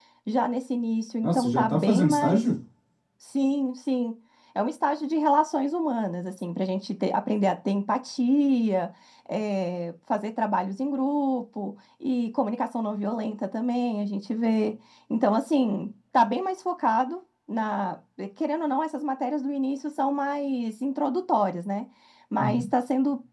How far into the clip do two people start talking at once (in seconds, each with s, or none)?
1.2 s